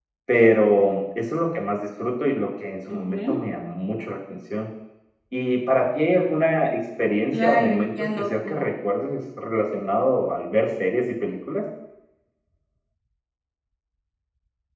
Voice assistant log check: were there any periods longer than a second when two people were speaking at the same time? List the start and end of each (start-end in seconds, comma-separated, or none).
7.3-8.6